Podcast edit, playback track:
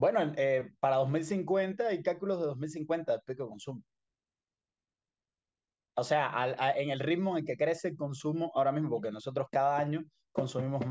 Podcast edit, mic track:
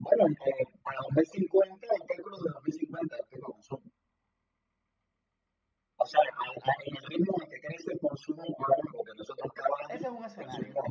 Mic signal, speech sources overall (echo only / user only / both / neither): both